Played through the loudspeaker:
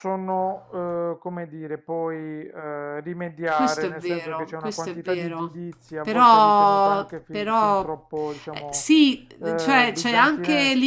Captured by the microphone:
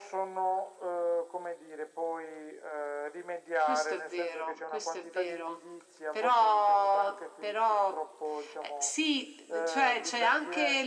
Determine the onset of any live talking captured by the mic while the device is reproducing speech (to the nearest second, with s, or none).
none